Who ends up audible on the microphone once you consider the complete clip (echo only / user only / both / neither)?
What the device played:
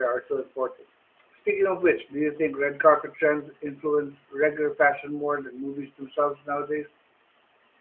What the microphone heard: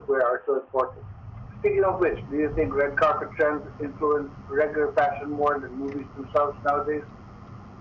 echo only